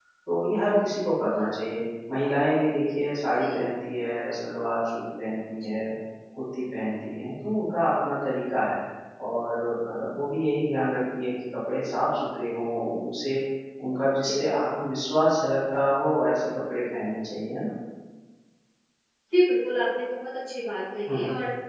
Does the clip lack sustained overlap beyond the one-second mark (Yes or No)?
Yes